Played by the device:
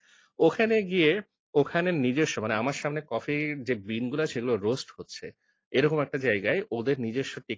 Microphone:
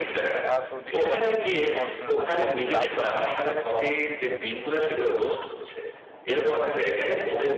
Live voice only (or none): আ তো নিশ্চয়ই আপনার বিভিন্ন সময়ে বিভিন্ন ধরনের কফি ট্রাই করা হয়েছে।